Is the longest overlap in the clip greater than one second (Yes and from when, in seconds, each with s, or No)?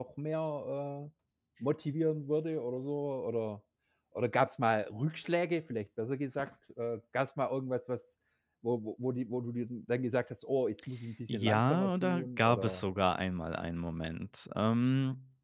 Yes, from 11.3 s